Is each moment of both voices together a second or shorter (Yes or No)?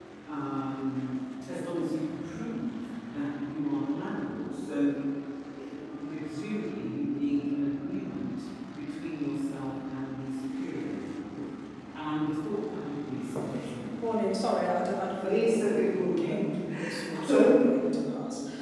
No